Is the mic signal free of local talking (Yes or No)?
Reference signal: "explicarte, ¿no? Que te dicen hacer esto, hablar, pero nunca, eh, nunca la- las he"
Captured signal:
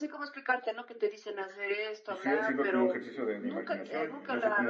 No